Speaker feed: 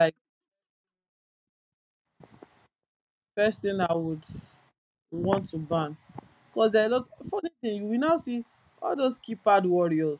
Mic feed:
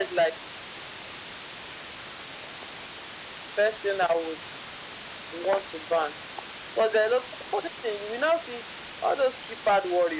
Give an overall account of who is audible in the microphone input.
echo only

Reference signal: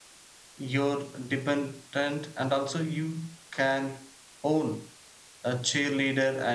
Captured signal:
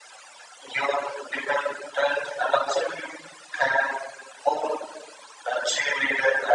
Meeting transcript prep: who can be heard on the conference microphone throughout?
echo only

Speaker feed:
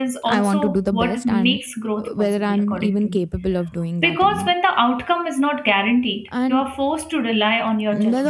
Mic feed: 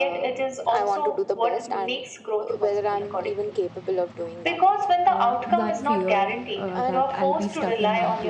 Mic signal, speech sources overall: both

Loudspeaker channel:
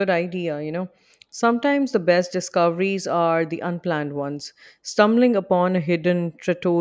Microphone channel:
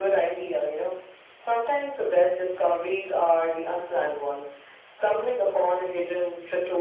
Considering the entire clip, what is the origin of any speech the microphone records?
echo only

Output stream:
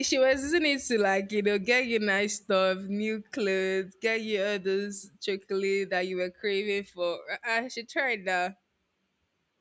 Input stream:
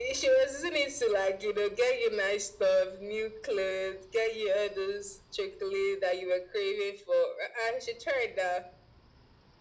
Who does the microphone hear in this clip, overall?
echo only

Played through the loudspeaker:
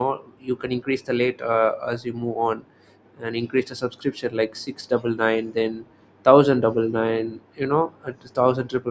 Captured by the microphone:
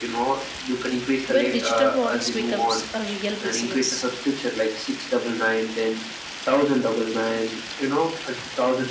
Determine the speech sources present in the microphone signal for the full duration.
both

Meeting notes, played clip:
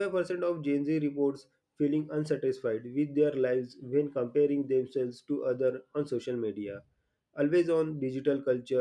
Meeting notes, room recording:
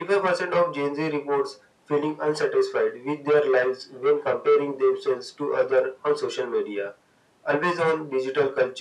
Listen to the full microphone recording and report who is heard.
echo only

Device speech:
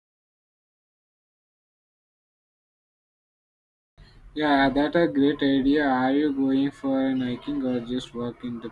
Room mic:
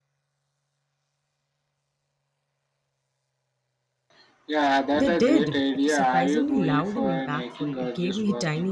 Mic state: both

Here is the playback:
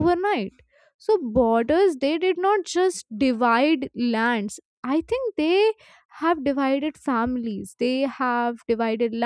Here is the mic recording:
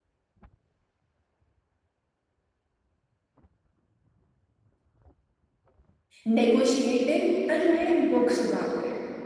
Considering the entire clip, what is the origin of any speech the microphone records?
user only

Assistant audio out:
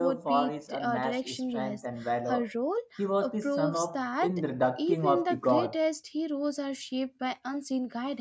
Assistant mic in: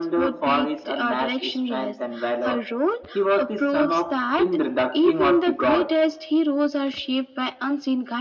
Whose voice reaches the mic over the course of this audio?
echo only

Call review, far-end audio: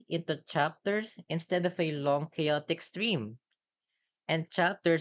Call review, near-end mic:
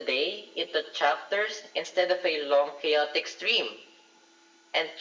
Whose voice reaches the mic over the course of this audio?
echo only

